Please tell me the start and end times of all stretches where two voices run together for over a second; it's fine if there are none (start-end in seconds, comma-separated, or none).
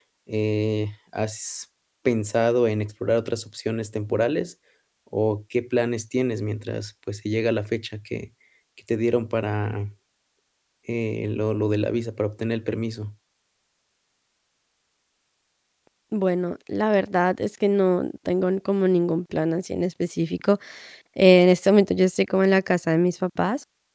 none